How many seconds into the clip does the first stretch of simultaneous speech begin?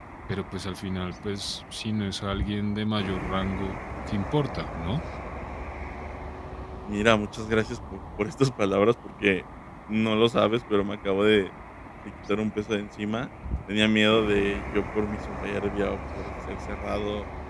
none

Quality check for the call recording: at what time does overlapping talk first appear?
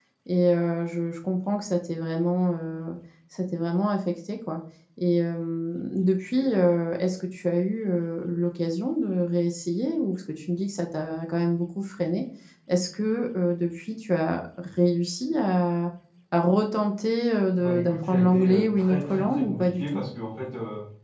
18 s

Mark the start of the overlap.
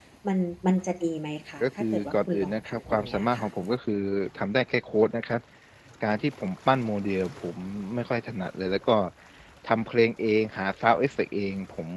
2 s

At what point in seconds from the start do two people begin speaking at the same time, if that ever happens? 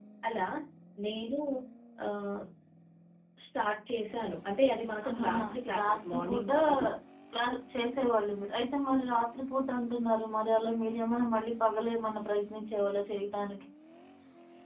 5 s

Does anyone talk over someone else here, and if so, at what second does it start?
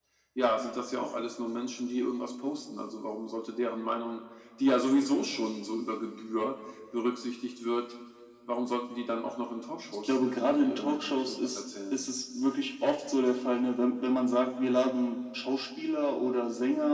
10 s

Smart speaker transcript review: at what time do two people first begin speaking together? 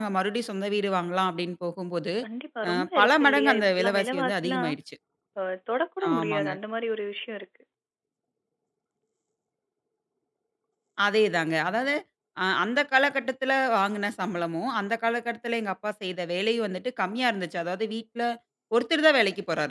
3 s

